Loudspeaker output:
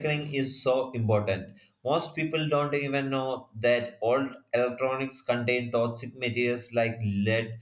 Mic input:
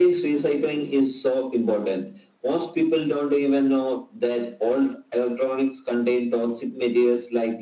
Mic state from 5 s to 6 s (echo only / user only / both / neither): echo only